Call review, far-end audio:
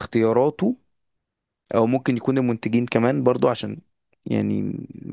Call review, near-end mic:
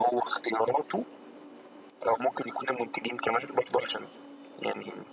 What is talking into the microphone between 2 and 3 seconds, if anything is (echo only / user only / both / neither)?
echo only